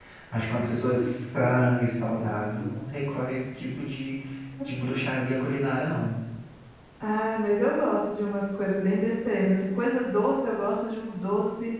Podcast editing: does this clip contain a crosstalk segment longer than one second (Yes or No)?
No